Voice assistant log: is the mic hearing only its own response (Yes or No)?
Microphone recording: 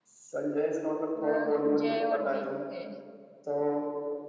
No